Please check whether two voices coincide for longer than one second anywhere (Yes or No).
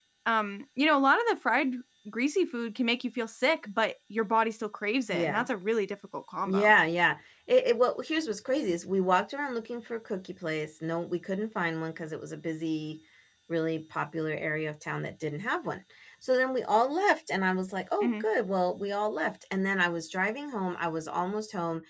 No